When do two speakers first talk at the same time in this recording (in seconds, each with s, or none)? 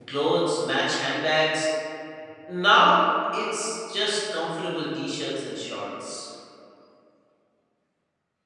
none